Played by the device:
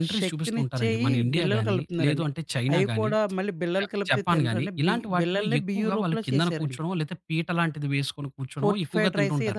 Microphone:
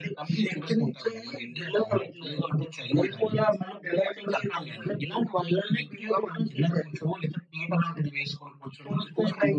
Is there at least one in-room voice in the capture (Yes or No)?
No